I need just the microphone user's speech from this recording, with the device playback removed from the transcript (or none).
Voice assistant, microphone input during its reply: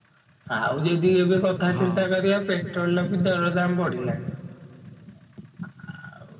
ହଁ